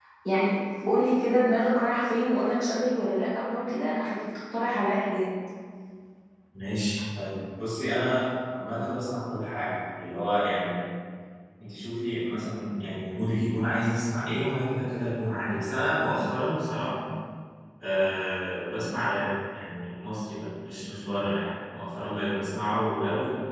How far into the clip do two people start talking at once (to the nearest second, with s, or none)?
none